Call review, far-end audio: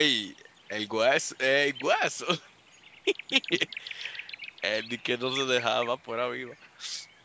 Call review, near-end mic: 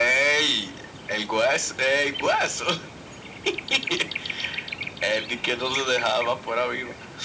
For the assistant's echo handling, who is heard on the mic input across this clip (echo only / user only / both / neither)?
echo only